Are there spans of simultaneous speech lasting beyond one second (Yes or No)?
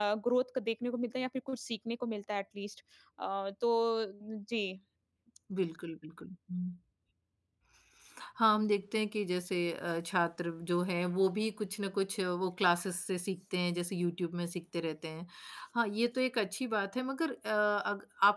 No